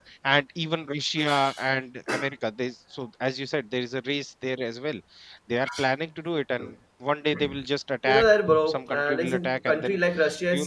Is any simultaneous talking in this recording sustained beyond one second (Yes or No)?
Yes